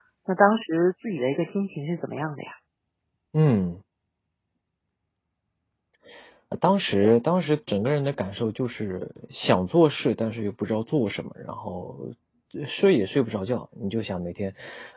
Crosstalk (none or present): none